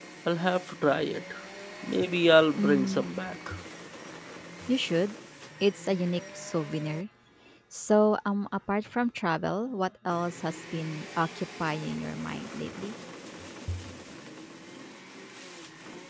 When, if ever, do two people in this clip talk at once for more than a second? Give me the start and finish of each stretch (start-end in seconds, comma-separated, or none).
none